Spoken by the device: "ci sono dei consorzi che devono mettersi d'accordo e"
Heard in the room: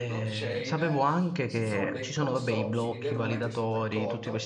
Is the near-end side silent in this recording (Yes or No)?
No